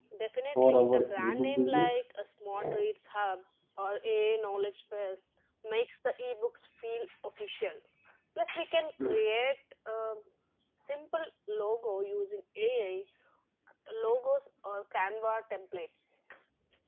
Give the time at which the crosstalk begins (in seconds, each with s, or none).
0.6 s